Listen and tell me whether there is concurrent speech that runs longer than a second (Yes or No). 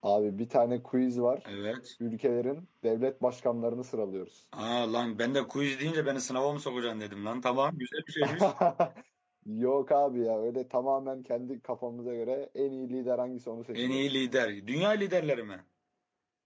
No